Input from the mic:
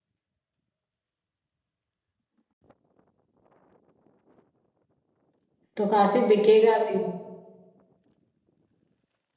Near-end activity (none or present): present